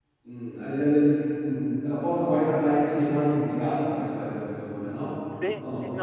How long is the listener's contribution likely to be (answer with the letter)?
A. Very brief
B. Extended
B